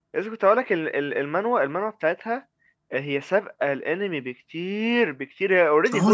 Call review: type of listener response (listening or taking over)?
taking over